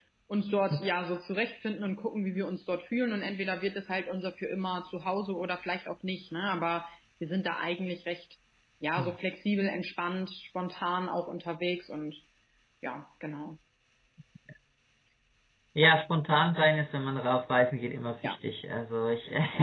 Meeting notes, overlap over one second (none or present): none